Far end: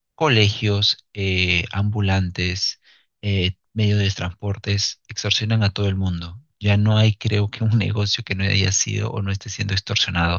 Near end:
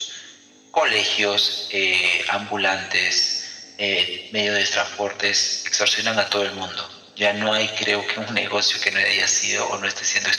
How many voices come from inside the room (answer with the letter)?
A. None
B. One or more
A